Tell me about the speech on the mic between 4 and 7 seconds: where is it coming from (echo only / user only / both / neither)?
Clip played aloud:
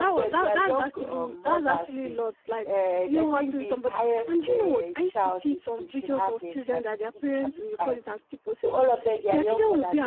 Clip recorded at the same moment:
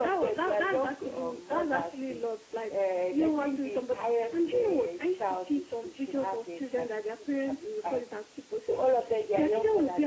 echo only